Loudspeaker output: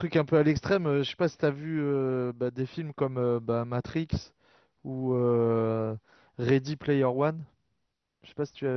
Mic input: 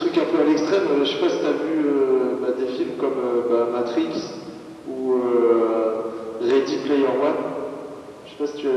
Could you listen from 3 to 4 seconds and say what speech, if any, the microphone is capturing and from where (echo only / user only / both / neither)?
echo only